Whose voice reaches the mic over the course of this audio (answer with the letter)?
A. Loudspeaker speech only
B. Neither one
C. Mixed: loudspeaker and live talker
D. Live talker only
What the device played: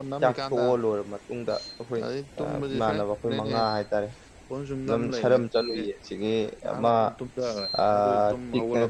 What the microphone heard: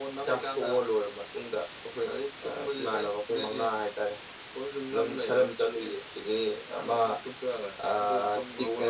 A